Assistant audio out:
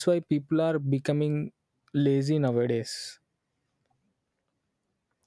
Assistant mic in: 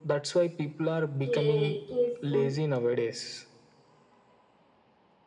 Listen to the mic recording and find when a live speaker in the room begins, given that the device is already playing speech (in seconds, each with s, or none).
1.2 s